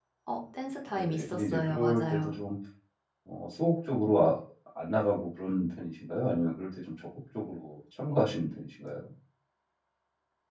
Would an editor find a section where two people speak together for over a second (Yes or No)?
Yes